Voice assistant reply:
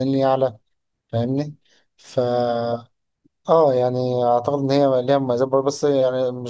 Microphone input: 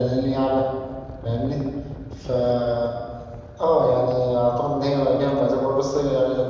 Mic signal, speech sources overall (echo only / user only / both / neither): echo only